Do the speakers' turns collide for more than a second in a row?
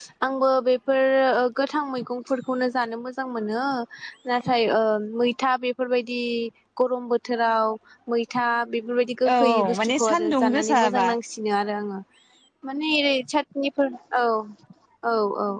Yes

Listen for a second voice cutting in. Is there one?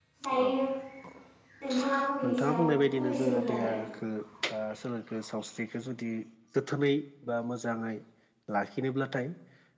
Yes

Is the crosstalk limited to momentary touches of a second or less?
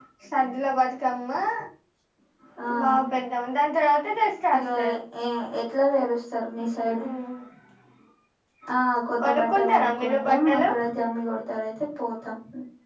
No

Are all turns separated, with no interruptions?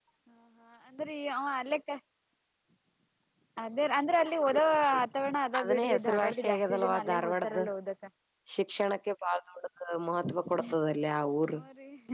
No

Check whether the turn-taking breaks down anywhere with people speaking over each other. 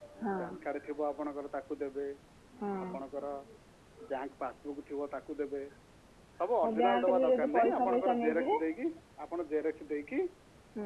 Yes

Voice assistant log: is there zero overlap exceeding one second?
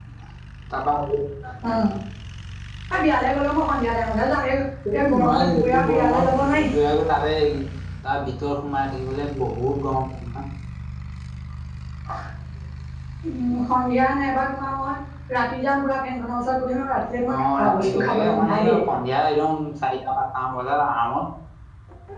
No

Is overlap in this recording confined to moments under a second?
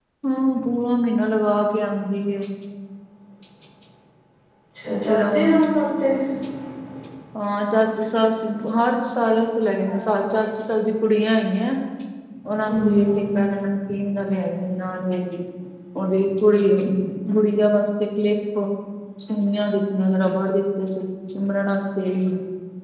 Yes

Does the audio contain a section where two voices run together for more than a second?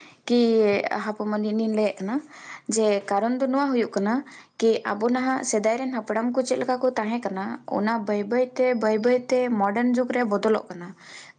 No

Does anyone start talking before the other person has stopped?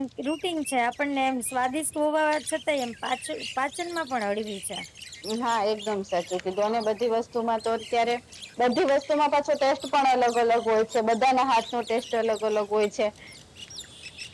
No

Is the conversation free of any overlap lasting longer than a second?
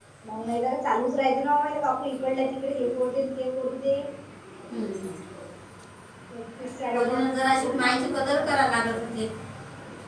No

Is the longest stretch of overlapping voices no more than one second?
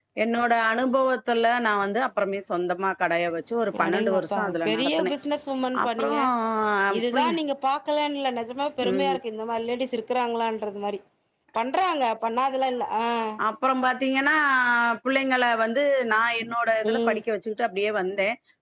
No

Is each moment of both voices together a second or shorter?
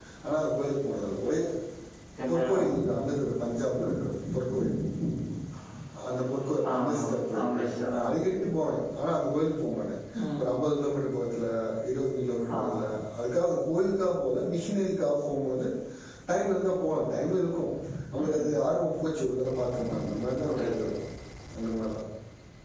Yes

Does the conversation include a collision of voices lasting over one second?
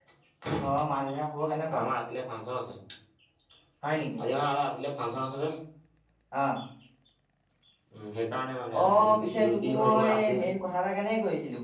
Yes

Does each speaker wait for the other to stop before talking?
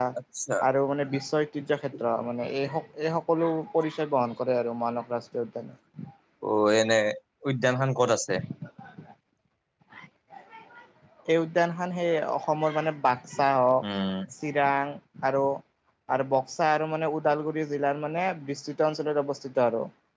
Yes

